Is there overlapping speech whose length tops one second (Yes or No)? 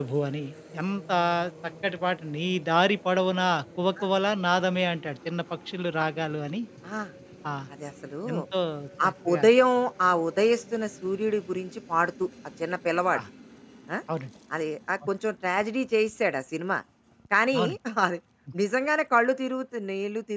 No